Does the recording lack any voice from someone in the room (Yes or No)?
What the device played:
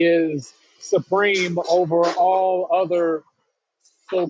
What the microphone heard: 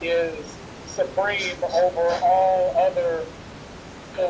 Yes